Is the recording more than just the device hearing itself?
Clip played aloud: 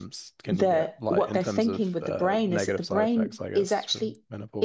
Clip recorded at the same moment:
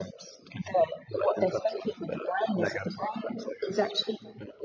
No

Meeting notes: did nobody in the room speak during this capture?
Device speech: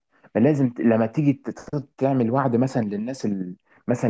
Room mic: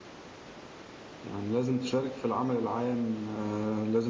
No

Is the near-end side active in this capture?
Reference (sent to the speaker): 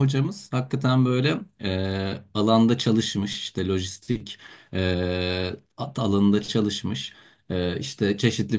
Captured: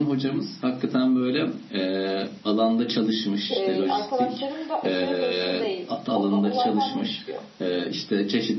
Yes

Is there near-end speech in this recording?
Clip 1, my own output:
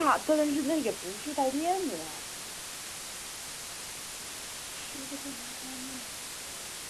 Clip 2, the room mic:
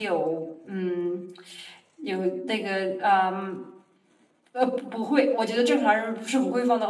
Yes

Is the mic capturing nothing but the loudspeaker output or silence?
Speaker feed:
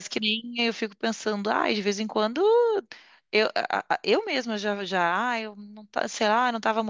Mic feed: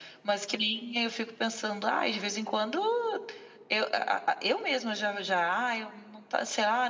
Yes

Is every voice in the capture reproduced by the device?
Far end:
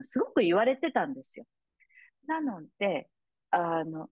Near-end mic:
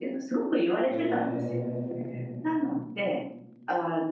No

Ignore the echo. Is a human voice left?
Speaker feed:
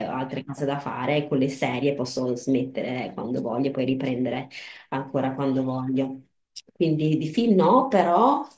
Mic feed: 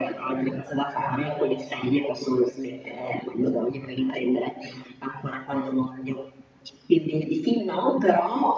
No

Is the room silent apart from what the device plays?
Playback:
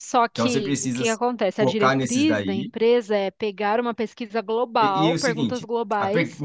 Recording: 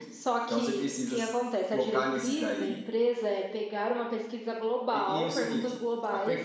Yes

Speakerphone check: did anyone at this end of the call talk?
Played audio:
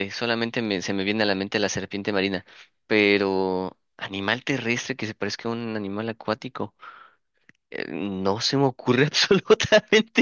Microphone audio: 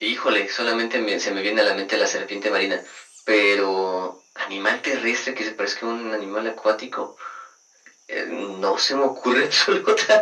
No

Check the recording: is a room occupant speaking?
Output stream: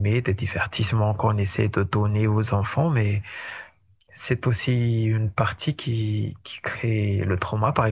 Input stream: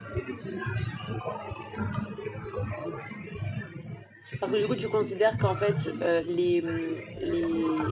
Yes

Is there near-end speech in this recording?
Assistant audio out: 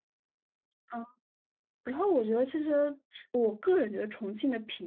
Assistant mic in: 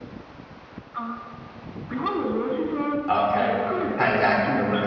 Yes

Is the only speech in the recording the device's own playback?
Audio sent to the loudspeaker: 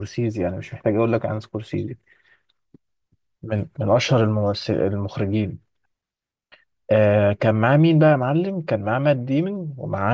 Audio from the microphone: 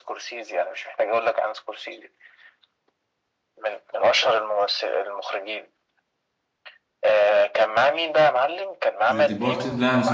No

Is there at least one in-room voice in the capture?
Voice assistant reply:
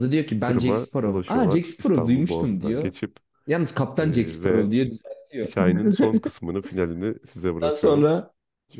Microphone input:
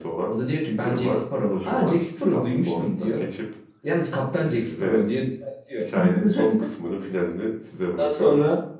No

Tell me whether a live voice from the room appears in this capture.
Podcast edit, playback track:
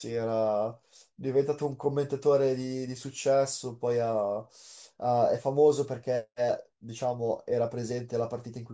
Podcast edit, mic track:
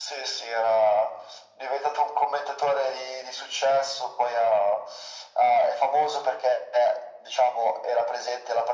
No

